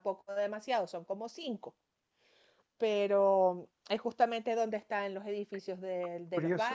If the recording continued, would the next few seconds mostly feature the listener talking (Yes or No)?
Yes